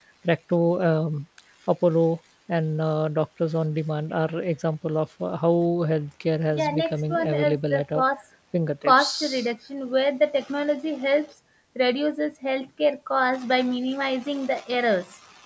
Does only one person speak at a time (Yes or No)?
No